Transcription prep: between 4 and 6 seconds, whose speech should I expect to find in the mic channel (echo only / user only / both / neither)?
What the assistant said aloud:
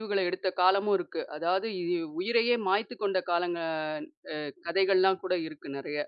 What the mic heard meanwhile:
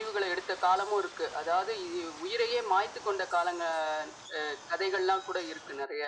echo only